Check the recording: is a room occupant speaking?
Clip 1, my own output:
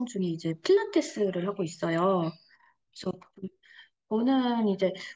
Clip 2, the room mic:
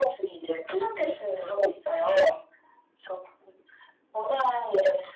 No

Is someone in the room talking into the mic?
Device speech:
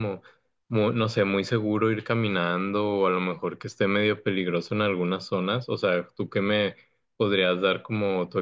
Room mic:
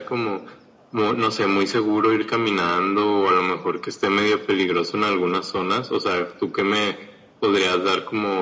No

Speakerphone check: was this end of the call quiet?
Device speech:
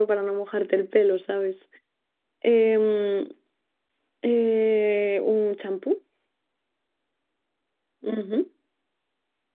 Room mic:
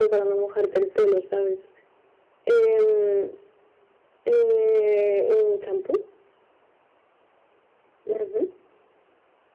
Yes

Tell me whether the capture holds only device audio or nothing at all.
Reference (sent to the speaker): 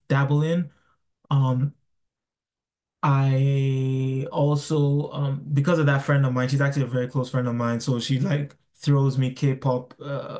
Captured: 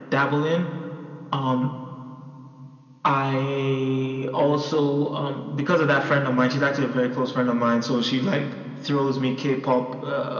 Yes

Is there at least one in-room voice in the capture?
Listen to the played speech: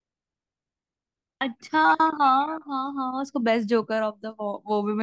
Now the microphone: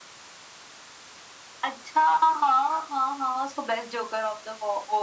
No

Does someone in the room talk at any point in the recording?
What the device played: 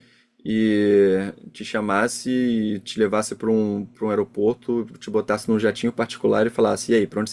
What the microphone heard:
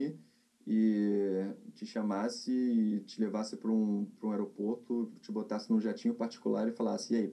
No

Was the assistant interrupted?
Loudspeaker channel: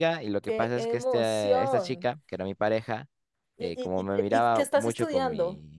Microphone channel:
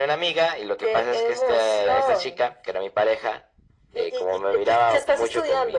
No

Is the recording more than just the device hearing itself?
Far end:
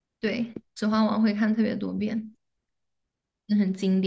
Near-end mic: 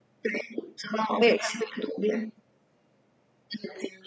Yes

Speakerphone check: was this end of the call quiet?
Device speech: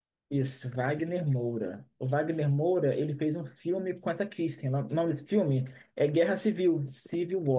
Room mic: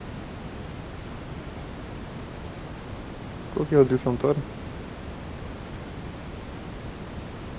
No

